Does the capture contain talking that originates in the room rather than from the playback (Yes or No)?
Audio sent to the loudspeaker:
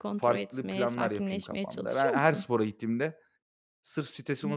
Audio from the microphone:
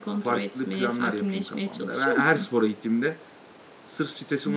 No